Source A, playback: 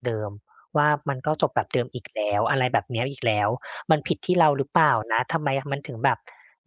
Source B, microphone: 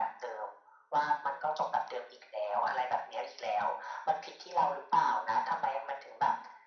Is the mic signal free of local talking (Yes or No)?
Yes